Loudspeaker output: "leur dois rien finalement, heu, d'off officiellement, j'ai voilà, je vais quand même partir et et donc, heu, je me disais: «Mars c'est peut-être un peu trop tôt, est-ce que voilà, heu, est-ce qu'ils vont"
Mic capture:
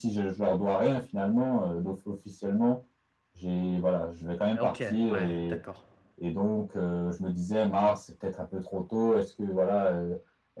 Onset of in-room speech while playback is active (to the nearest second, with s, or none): 5 s